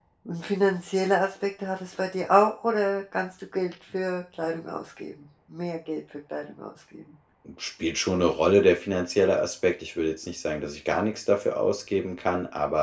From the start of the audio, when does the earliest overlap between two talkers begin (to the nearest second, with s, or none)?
none